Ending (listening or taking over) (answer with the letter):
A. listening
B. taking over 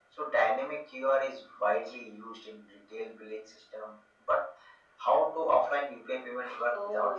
B